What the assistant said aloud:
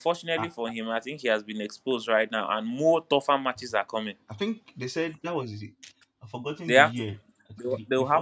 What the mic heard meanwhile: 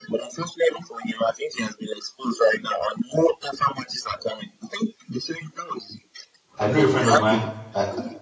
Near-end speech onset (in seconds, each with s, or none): 6.6 s